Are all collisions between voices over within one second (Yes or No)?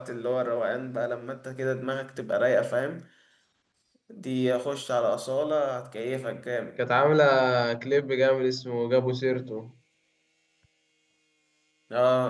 Yes